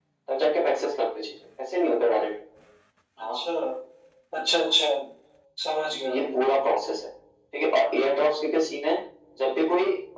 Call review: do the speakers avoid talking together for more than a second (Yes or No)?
Yes